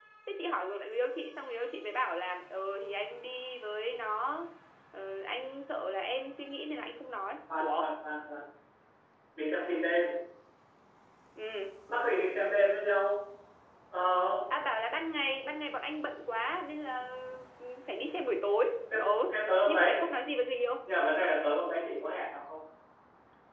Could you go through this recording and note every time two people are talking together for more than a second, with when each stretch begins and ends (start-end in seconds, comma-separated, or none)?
none